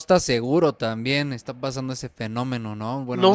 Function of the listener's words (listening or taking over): taking over